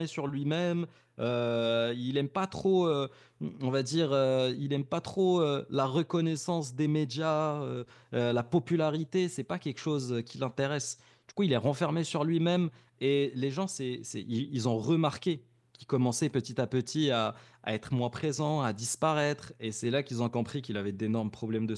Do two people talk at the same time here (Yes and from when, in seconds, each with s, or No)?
No